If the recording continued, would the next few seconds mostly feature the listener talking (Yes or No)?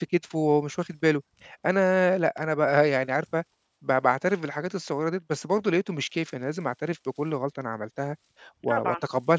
No